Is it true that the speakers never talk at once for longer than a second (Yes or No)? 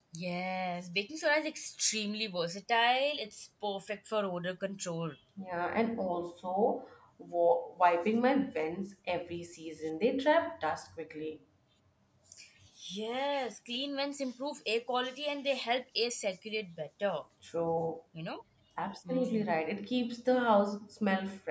Yes